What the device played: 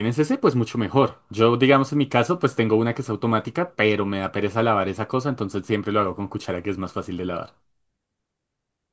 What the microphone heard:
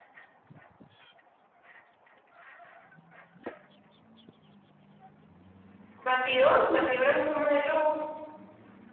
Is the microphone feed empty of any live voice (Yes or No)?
No